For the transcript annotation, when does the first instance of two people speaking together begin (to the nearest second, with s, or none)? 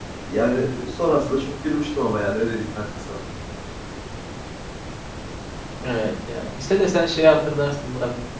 none